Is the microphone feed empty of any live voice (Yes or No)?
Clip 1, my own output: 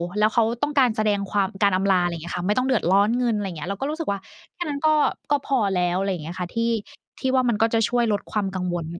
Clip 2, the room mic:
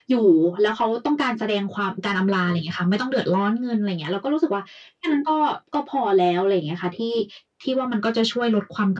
Yes